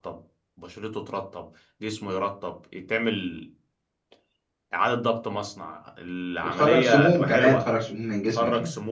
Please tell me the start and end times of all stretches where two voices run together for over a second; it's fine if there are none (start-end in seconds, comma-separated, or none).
6.4-7.7